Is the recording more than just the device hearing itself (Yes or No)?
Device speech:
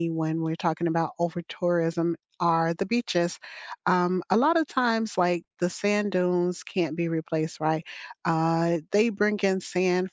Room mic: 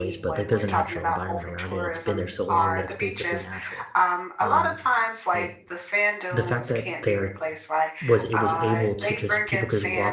Yes